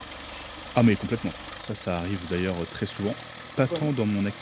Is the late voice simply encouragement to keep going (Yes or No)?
Yes